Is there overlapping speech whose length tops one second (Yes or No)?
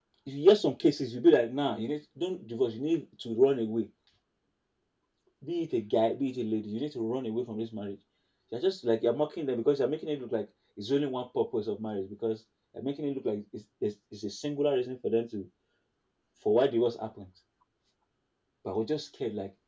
No